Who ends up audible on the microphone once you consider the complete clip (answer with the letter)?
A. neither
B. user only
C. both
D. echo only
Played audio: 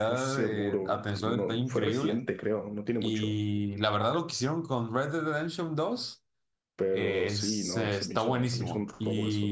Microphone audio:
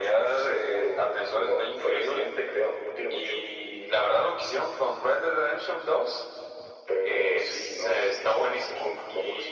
D